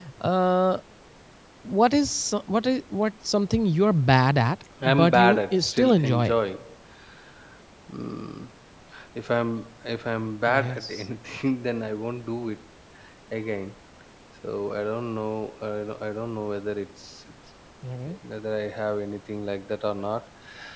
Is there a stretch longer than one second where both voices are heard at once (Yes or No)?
Yes